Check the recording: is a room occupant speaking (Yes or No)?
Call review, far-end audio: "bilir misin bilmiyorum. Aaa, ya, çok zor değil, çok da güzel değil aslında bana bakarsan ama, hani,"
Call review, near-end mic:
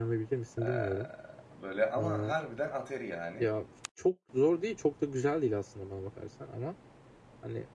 Yes